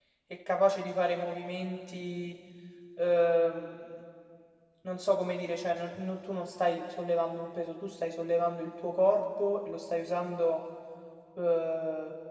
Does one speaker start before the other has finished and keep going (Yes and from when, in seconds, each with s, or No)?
No